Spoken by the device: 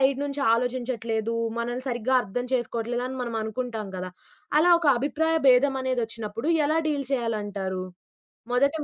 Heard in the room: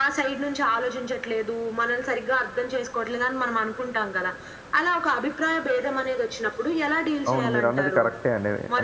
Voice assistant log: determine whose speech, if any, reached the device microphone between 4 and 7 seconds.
echo only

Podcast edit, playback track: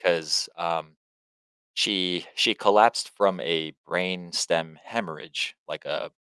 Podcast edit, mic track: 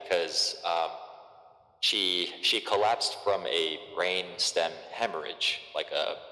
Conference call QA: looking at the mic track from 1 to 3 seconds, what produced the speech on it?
echo only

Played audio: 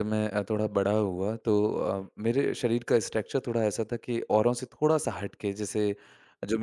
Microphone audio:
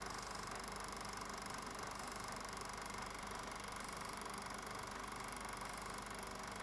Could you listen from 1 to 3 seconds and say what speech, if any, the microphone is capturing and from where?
neither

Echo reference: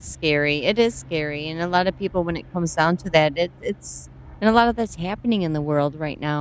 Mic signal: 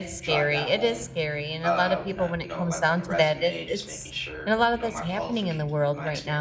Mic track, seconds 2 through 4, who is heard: both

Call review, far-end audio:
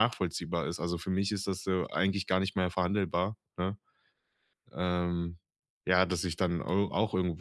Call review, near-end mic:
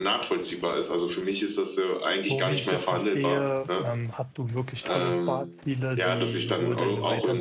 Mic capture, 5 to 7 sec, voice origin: both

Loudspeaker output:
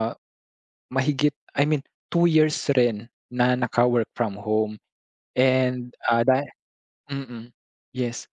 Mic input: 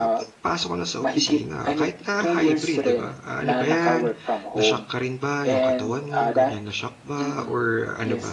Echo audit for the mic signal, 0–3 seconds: both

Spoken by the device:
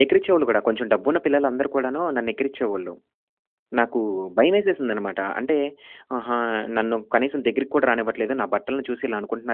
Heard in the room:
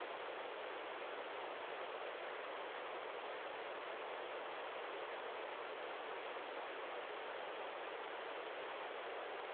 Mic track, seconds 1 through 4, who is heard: neither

